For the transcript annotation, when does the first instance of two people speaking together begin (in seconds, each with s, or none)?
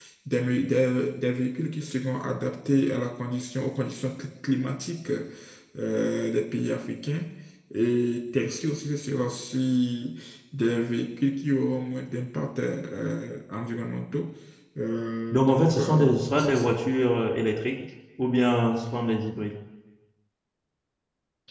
15.3 s